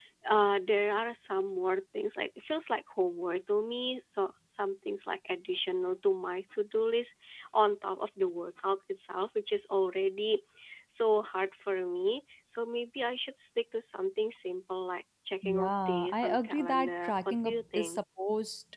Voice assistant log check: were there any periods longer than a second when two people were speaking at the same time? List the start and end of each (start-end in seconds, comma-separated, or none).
15.4-18.0